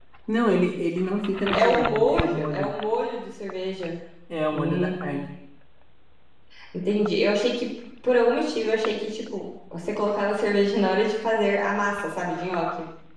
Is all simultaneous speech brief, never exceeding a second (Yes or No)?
No